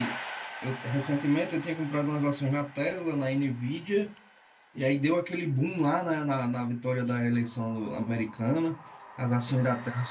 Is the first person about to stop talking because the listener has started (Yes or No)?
No